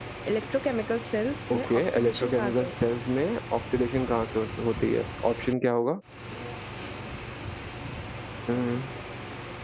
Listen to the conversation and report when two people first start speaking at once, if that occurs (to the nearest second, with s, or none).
2 s